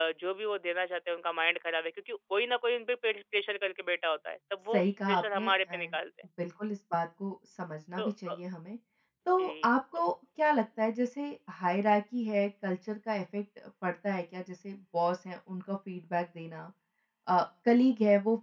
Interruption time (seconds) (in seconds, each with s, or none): 4.7 s